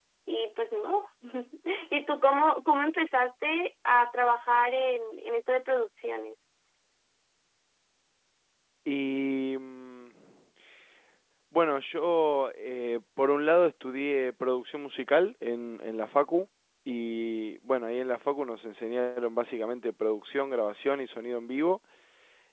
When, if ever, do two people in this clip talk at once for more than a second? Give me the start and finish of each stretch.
none

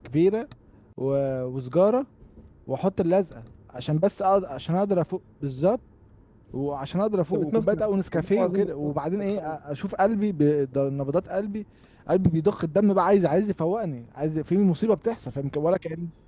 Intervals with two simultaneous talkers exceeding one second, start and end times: 7.3-9.6

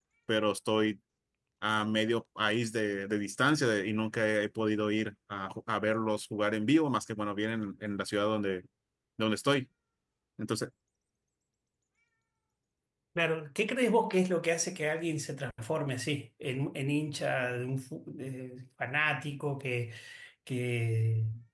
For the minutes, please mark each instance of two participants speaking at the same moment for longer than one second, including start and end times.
none

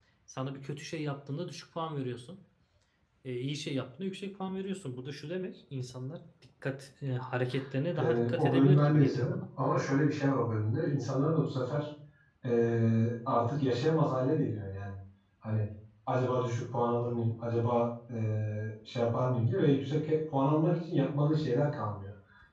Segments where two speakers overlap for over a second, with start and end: 8.0-9.4

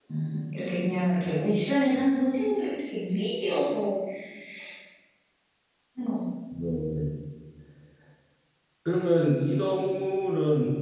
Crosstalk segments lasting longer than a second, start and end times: none

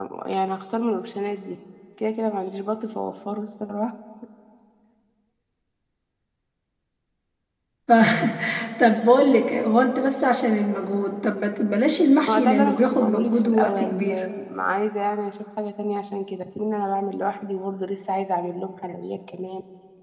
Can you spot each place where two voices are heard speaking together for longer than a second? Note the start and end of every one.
12.3-14.1

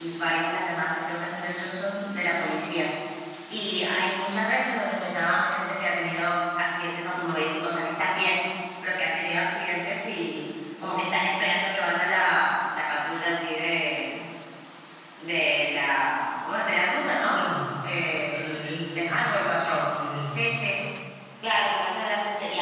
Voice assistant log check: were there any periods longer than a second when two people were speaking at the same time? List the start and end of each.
none

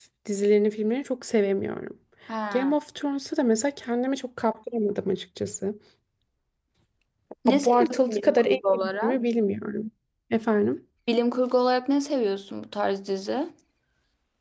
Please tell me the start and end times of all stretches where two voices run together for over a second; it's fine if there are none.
7.5-9.2

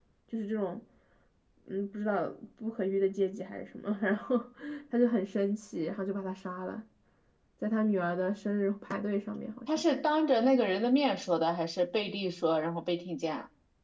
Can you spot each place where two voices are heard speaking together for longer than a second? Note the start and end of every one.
none

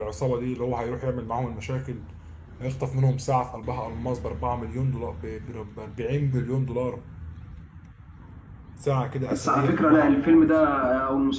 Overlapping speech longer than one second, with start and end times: 9.3-10.6

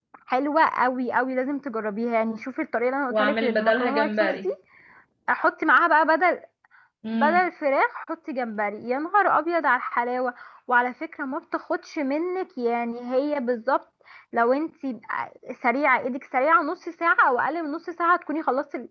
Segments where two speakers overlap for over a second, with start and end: 3.1-4.5

